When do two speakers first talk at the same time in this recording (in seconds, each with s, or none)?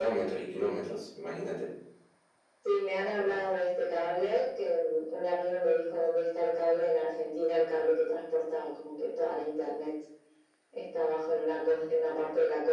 none